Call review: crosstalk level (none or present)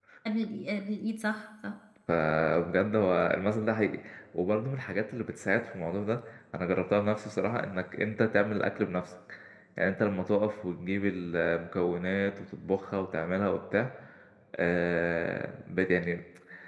none